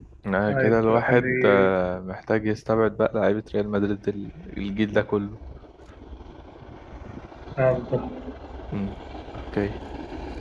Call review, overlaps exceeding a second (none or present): present